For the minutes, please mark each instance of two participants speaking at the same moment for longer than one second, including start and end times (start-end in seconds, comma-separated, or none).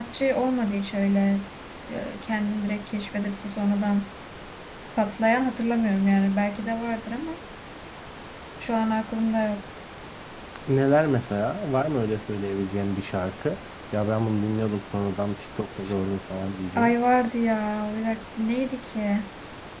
none